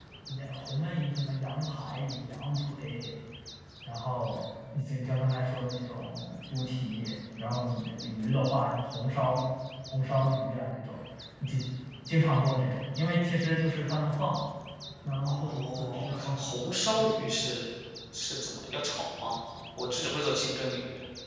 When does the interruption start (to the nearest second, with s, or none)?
15 s